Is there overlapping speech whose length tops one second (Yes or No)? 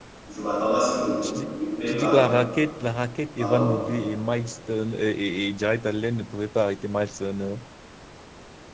No